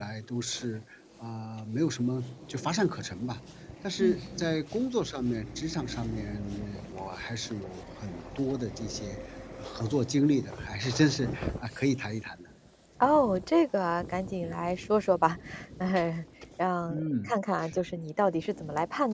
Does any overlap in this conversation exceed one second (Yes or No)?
No